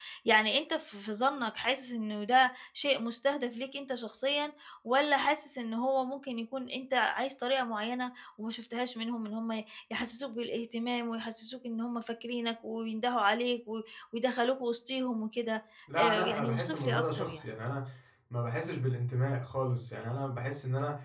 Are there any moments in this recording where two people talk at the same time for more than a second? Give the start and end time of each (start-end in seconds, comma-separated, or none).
16.0-17.4